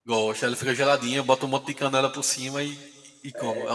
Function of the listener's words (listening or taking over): taking over